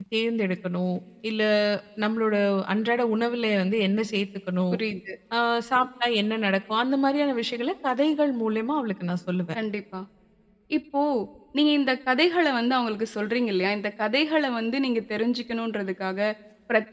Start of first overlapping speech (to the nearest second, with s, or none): none